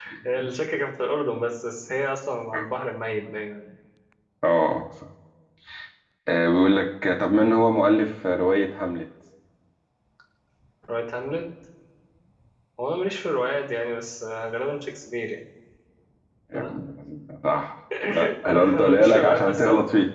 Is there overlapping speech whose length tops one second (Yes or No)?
Yes